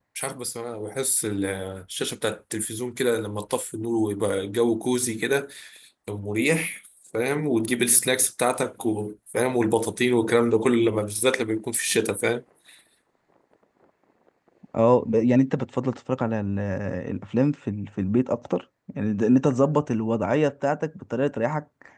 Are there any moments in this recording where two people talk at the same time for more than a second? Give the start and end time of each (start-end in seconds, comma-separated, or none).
none